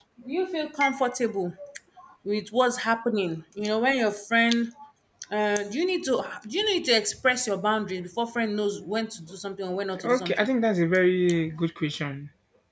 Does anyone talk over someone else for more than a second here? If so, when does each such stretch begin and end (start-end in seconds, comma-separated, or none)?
none